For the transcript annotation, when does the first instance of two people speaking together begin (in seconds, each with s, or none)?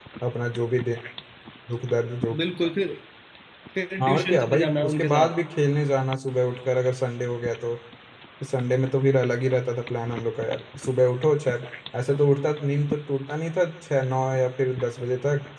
4.0 s